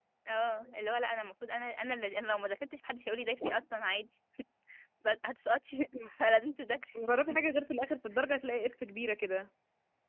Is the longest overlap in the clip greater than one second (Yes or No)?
No